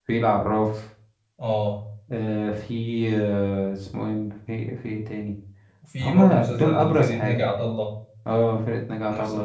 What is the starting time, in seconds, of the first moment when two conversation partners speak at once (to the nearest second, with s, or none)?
6 s